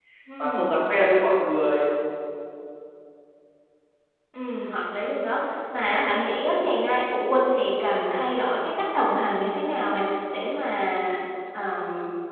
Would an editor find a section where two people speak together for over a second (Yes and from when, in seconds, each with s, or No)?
No